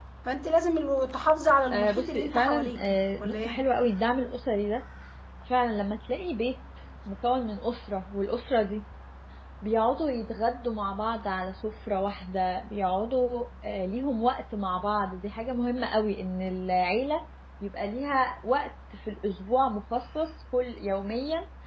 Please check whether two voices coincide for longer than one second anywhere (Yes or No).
Yes